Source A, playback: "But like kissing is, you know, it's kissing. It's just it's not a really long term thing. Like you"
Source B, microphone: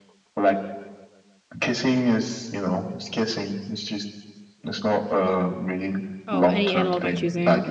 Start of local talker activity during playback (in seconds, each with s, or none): 6.3 s